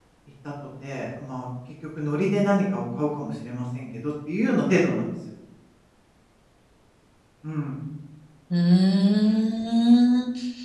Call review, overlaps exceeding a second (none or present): none